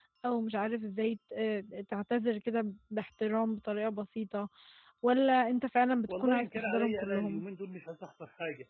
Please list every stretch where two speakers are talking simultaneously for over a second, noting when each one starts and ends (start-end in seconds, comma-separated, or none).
6.1-7.4